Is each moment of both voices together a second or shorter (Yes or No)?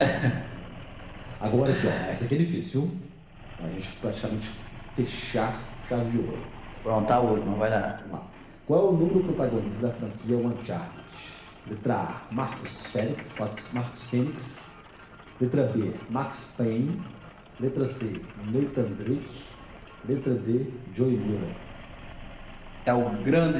Yes